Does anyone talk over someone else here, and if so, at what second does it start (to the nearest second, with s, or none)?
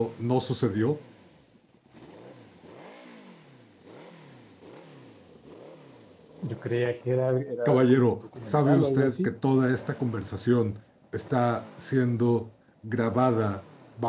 8 s